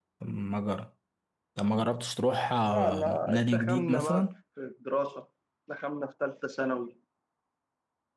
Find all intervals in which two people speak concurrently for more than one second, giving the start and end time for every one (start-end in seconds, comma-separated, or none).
2.7-4.3